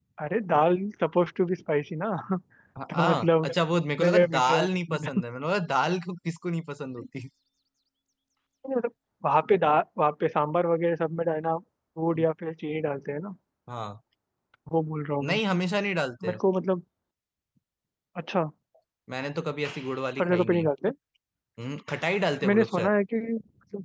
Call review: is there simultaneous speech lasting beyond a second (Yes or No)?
Yes